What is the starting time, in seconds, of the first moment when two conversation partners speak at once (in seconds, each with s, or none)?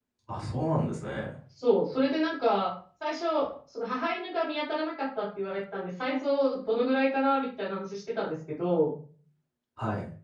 none